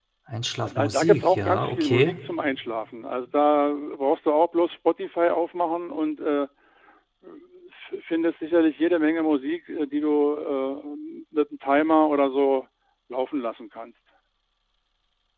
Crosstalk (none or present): present